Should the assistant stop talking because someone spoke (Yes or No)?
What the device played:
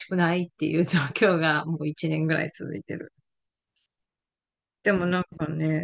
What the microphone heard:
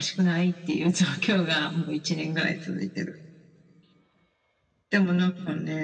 No